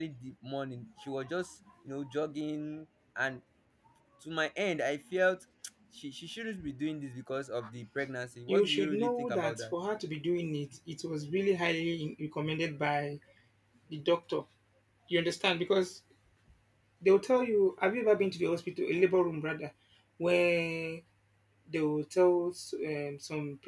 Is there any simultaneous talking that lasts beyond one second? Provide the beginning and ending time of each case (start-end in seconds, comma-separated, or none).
8.5-9.7